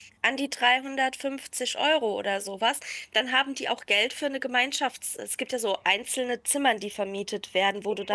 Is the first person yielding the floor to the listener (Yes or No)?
Yes